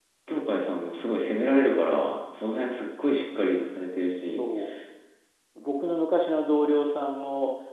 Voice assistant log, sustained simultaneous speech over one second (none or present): none